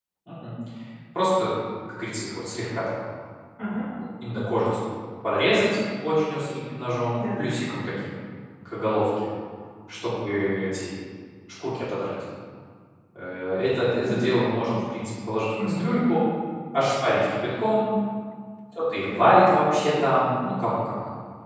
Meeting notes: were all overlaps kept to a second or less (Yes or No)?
Yes